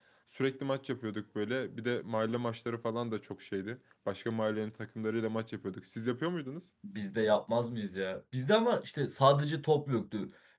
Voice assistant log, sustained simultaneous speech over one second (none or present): none